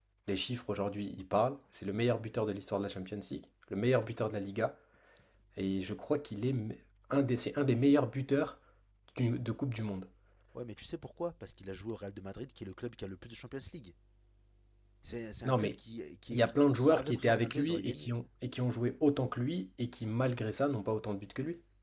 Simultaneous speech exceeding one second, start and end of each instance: 16.3-18.1

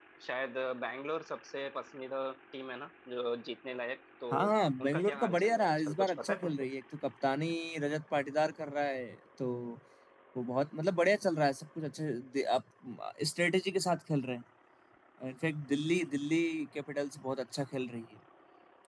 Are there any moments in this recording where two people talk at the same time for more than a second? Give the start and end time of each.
4.8-6.7

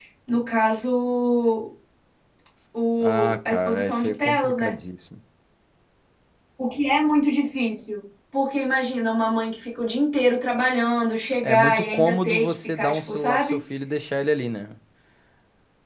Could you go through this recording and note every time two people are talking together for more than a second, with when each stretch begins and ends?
3.0-4.8, 11.4-13.6

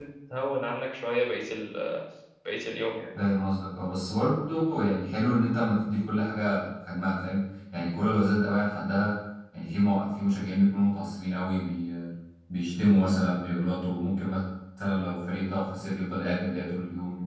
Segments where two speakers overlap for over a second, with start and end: none

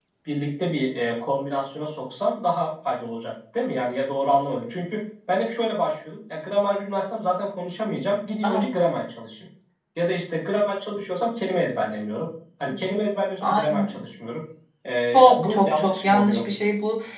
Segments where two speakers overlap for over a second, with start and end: 15.1-16.4

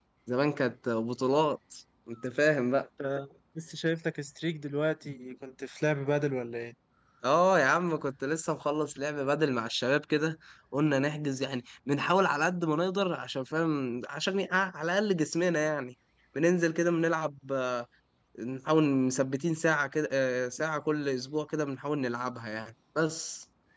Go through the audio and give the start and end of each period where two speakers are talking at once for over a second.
none

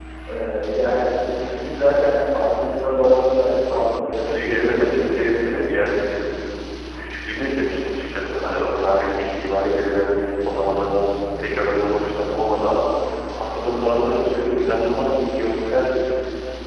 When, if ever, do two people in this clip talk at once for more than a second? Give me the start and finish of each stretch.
4.2-5.7

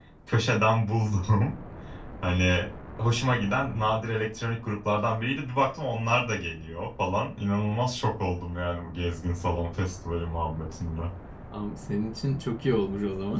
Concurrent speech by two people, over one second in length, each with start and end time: none

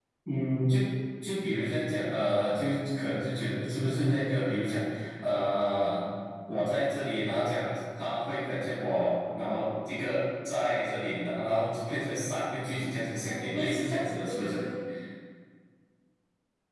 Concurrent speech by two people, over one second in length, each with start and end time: 13.2-14.6

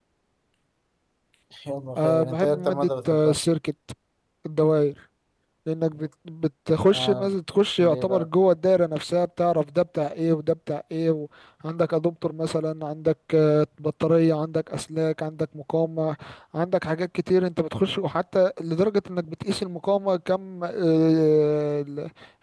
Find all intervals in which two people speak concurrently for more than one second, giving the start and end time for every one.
2.0-3.4

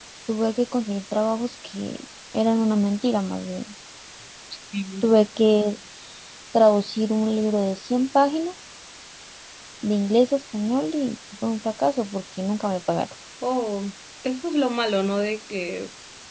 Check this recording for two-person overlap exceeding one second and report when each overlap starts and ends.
none

